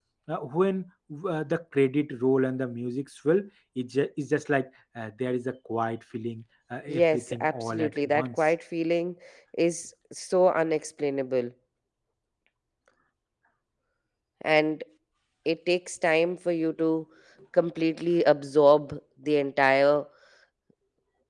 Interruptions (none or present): present